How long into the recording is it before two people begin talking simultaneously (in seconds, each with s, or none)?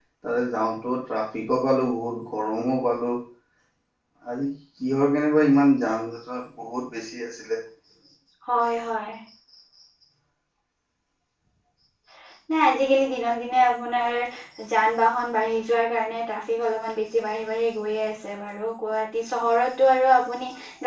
none